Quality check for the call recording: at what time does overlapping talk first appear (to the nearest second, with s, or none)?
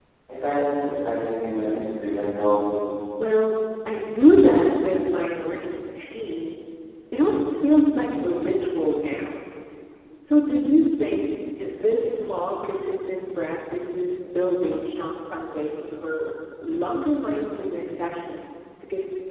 none